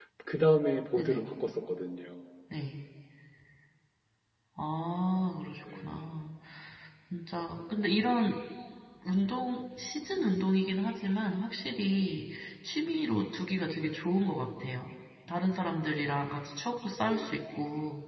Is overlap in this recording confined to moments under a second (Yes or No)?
Yes